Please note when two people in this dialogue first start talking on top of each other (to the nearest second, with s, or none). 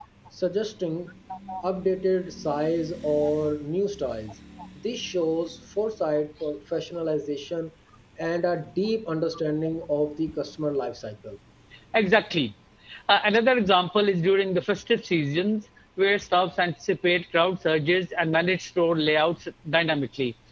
none